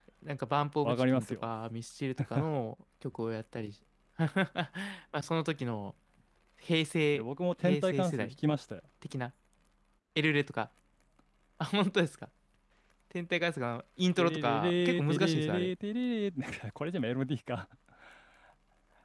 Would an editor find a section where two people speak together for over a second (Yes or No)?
Yes